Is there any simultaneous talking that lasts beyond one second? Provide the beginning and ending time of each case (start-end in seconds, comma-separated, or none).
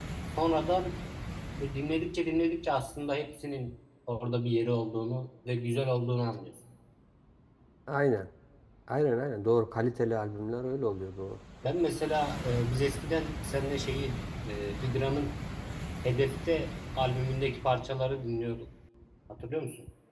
none